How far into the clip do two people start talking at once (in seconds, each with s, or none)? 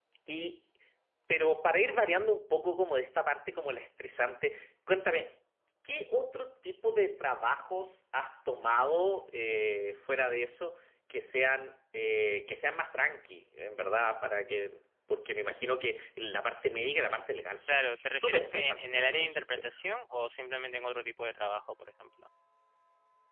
17.7 s